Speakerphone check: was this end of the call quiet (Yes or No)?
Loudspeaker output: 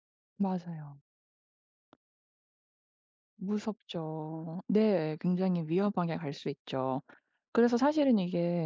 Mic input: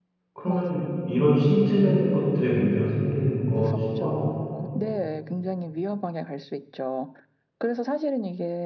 No